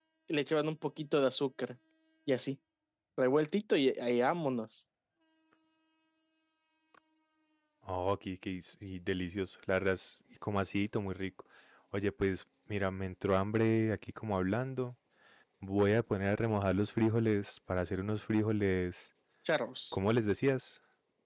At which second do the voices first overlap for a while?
none

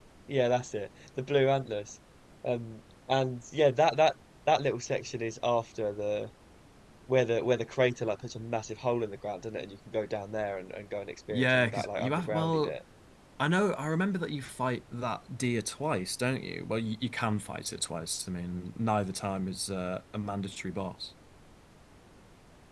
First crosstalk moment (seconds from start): 11.3 s

